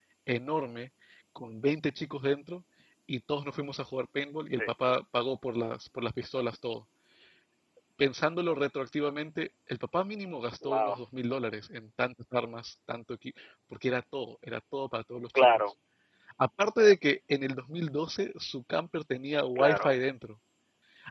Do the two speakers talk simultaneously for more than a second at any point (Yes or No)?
No